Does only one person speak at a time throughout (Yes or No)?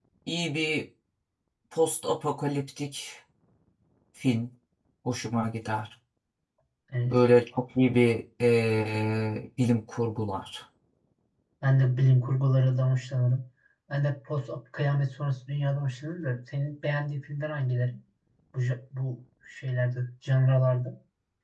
Yes